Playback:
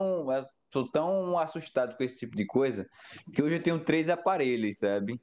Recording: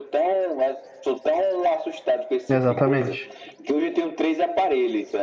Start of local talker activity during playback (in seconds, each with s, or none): 2.5 s